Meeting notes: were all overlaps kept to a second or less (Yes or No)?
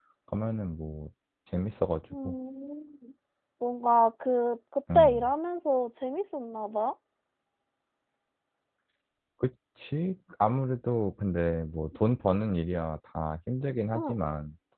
Yes